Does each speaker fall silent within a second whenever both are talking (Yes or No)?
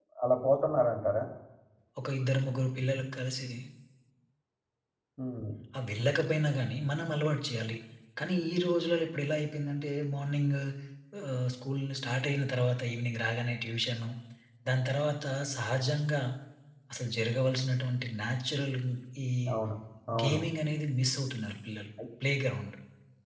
Yes